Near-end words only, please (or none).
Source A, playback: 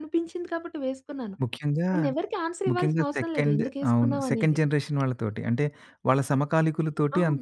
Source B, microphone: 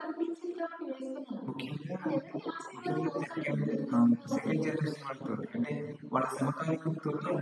none